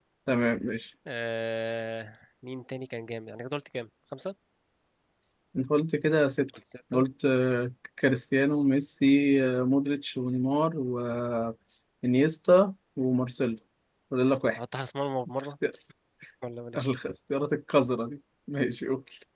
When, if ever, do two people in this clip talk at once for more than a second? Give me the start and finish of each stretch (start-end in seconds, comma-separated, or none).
none